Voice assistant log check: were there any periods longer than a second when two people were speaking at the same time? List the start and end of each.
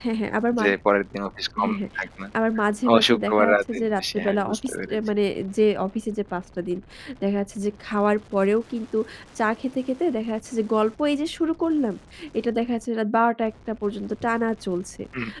2.9-5.0

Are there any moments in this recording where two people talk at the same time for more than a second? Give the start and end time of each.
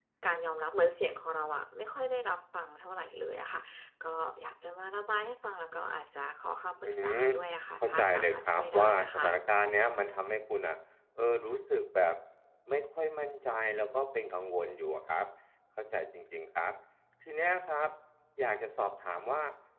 7.8-9.3

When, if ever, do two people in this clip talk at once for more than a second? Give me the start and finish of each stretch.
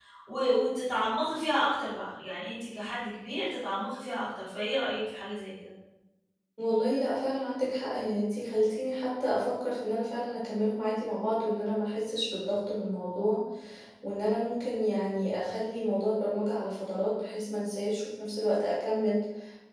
none

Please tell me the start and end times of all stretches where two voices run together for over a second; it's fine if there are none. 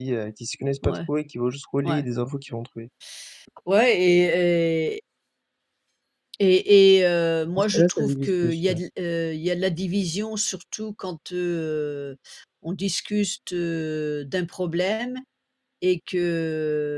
7.5-8.8

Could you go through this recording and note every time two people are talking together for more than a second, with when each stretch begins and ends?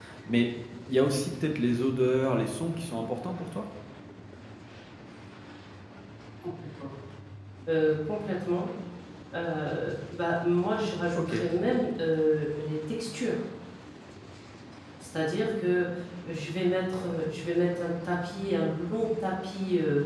none

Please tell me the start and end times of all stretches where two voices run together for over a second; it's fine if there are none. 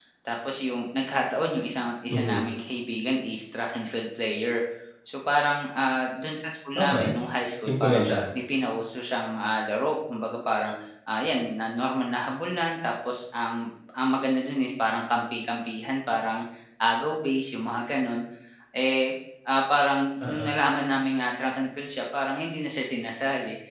none

